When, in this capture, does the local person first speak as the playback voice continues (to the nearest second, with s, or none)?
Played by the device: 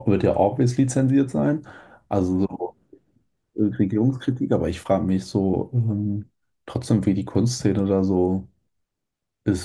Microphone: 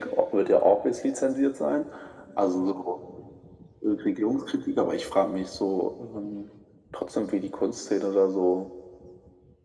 none